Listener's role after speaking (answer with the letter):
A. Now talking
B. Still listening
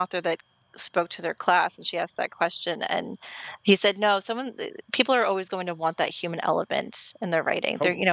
B